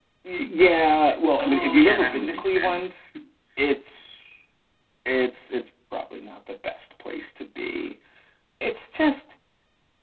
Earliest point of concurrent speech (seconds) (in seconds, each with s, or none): 1.4 s